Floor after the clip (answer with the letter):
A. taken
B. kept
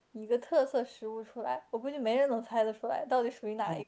A